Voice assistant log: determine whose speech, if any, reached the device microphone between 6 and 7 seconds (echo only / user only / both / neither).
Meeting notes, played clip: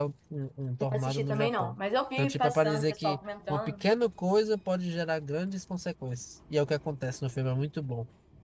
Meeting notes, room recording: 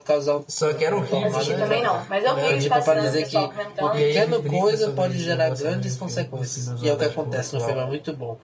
both